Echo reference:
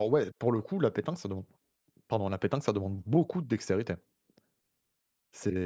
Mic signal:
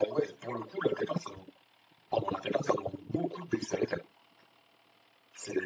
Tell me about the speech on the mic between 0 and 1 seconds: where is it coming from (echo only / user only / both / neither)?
echo only